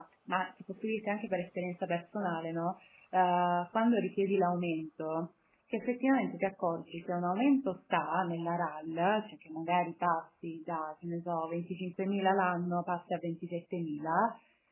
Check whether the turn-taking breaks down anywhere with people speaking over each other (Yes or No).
No